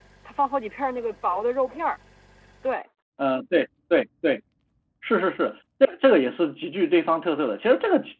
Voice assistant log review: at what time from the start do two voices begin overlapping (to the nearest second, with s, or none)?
none